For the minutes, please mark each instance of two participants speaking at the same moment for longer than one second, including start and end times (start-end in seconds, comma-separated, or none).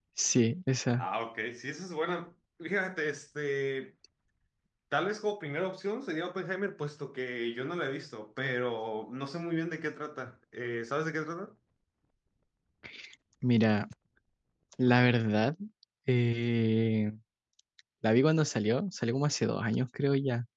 none